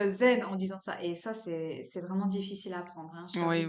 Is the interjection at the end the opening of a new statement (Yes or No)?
Yes